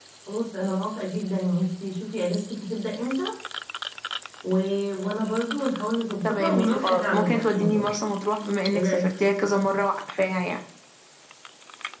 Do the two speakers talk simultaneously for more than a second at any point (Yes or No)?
Yes